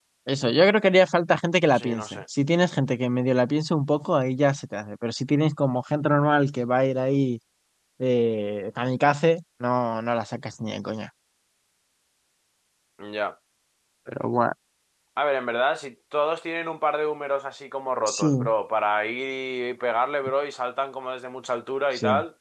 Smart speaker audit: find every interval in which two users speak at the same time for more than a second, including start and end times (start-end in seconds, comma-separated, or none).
none